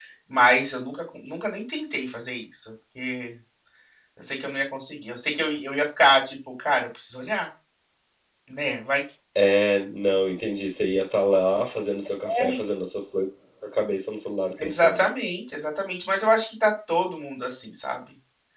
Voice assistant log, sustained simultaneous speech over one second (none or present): none